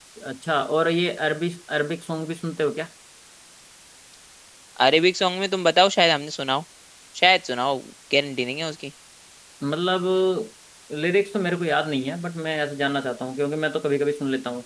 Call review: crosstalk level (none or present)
none